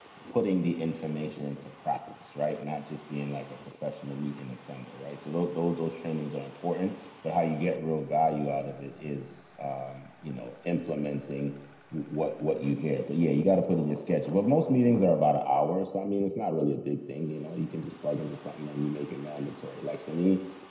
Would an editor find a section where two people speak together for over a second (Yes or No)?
No